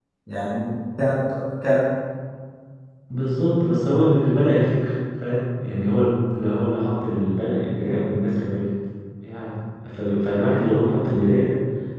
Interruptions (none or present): none